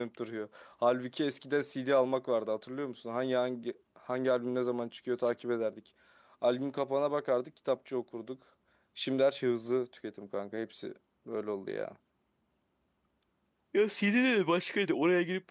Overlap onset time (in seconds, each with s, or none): none